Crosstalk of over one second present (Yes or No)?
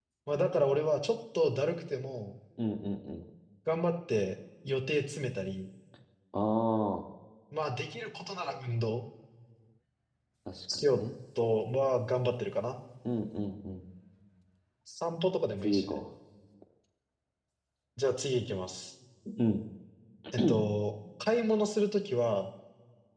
No